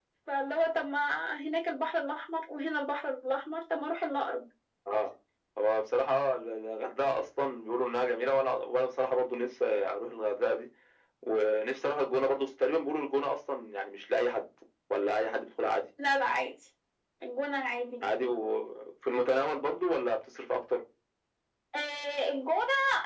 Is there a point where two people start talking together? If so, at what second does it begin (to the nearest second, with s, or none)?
none